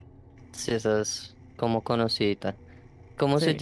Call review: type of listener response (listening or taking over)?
listening